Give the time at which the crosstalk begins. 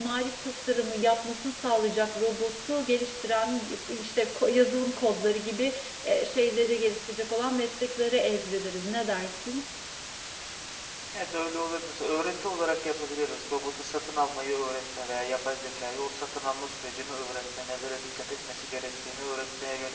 none

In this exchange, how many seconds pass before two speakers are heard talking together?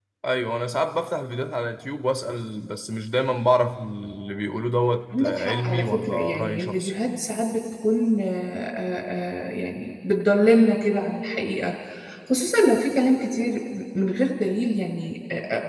5.1 s

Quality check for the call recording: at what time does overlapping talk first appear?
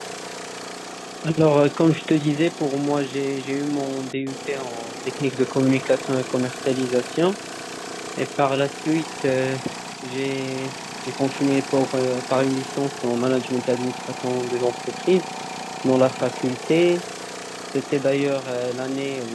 none

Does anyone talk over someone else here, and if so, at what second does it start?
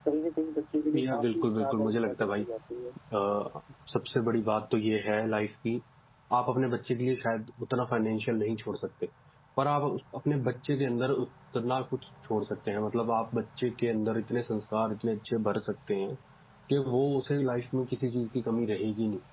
1.0 s

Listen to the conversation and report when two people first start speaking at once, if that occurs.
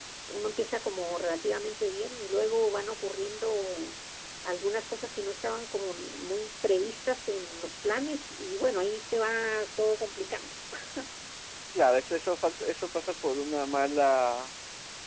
none

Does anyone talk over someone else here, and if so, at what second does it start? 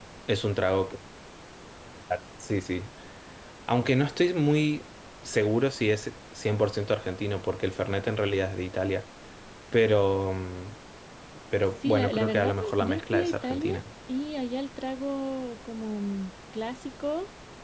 11.8 s

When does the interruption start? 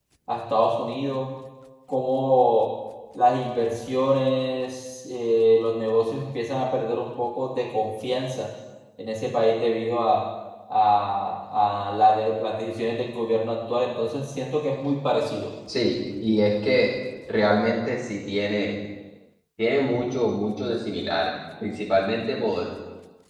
none

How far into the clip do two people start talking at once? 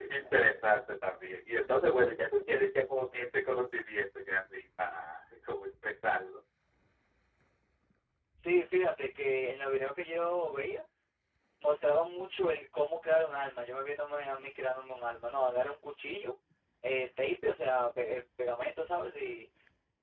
none

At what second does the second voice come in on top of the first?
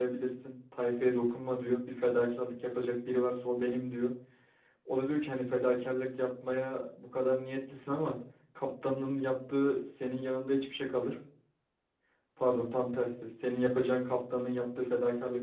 none

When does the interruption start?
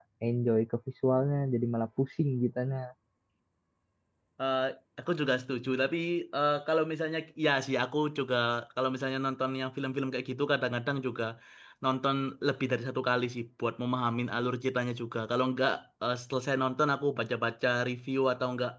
none

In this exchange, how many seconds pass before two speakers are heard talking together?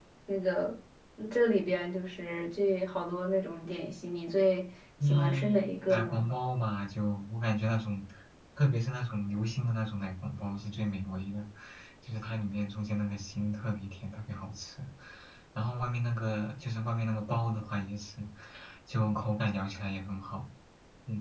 5.0 s

